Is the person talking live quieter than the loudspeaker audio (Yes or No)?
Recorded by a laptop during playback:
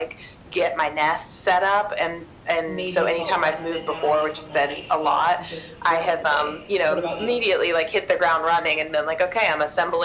Yes